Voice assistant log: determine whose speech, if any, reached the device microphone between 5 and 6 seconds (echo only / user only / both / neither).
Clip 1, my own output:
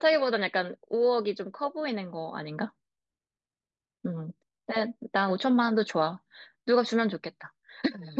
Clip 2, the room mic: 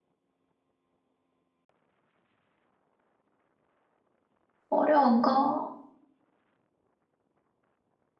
user only